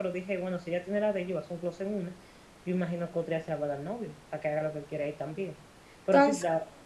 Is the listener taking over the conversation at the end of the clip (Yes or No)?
No